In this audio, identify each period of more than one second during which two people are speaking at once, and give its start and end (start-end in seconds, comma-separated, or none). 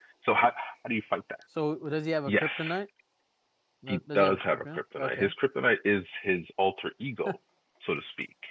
3.9-5.3